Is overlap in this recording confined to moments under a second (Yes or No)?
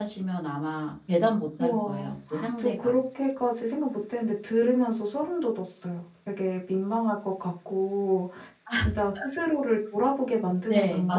No